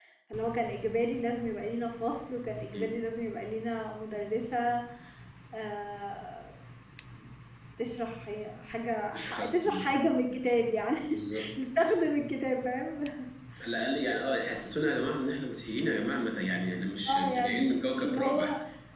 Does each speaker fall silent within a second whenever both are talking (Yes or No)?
No